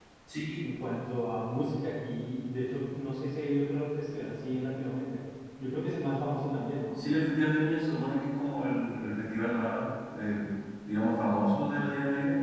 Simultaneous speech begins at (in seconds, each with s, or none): none